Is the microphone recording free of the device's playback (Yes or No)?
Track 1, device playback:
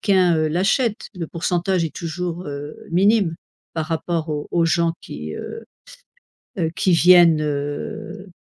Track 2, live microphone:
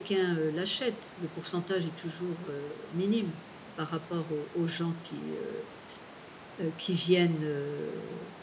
No